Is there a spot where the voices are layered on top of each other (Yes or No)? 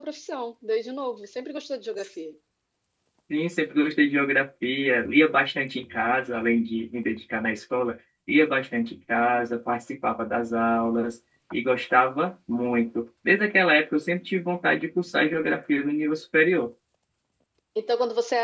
No